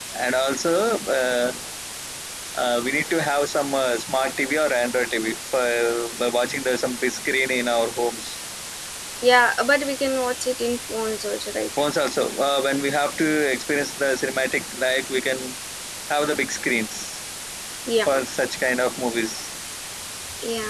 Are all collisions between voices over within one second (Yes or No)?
Yes